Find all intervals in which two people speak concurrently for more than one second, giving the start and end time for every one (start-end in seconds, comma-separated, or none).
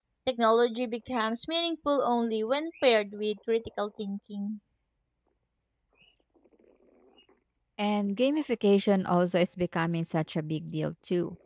none